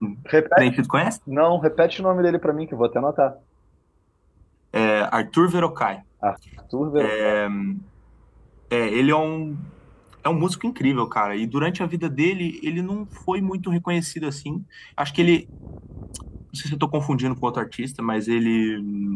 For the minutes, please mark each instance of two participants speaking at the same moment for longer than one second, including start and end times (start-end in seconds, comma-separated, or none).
none